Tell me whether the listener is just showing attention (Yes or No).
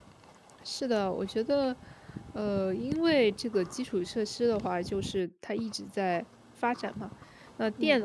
Yes